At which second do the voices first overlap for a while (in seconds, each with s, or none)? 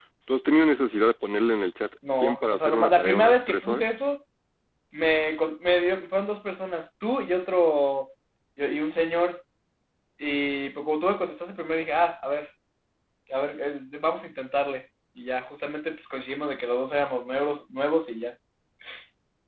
2.0 s